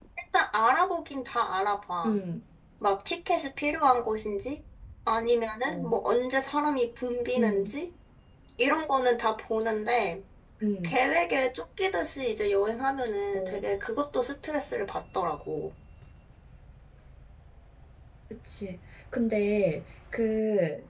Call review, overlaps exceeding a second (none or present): none